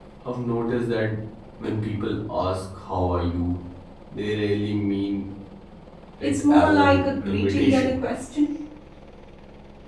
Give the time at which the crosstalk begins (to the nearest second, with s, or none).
6 s